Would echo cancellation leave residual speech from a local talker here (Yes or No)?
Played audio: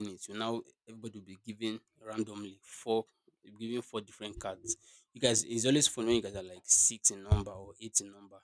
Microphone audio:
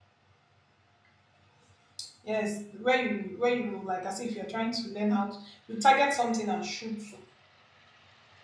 Yes